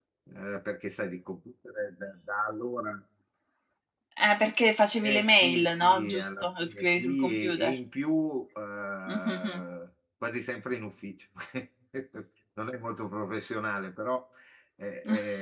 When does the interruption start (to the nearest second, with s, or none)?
5 s